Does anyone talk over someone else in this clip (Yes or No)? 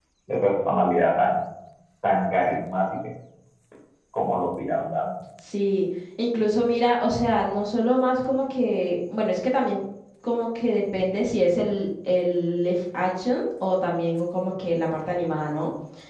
No